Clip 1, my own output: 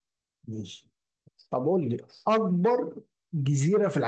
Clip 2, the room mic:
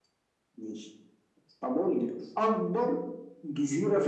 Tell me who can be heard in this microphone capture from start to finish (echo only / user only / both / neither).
echo only